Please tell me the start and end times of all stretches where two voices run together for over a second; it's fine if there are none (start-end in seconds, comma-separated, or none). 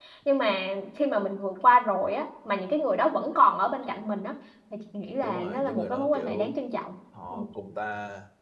5.2-6.6